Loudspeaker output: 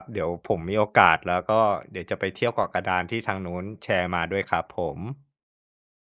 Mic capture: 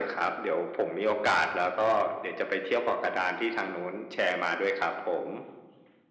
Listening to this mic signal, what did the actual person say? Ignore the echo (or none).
none